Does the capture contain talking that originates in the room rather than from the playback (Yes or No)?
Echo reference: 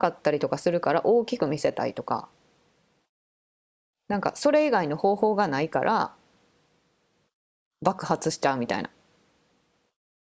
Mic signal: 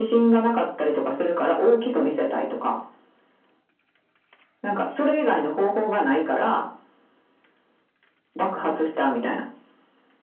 No